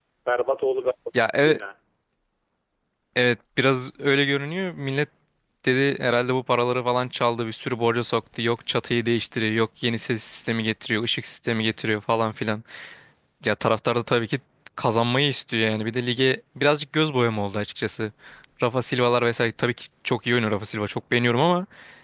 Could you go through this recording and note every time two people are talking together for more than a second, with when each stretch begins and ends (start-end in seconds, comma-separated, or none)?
none